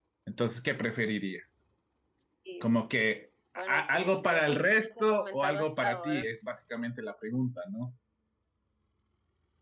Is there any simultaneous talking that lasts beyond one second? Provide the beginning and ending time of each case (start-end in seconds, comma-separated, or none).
3.6-6.2